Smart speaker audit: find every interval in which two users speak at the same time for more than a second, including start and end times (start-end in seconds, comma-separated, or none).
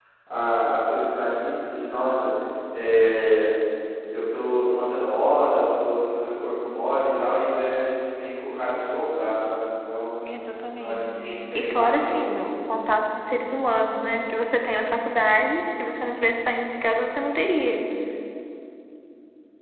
10.8-12.6